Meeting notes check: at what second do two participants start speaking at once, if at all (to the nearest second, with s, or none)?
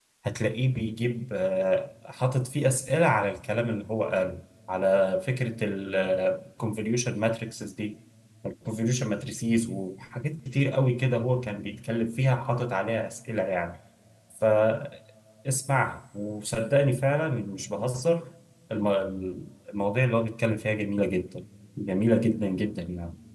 none